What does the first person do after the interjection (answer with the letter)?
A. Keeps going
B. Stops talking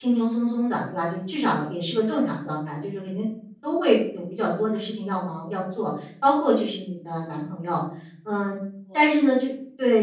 A